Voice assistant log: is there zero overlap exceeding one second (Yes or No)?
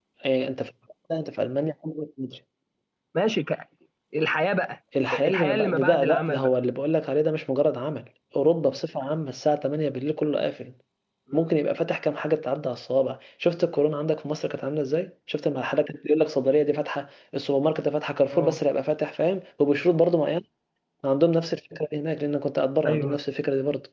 No